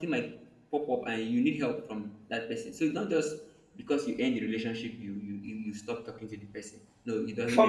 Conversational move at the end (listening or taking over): taking over